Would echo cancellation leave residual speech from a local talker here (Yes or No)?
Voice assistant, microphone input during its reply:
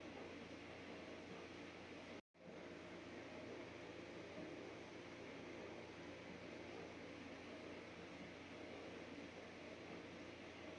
No